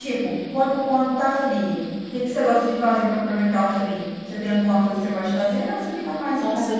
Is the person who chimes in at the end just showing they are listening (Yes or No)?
No